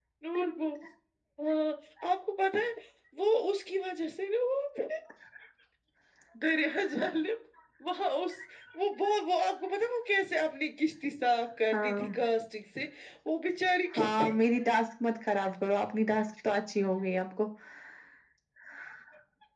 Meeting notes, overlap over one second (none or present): none